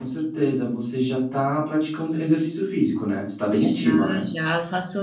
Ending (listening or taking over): taking over